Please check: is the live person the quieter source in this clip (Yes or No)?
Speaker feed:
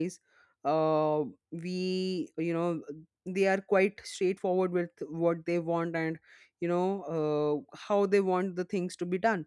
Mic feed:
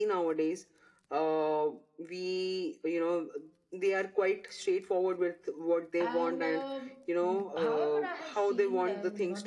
Yes